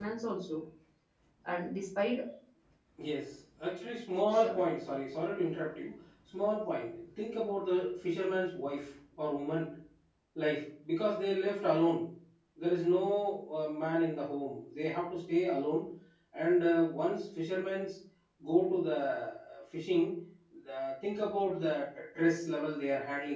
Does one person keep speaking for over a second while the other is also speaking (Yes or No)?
No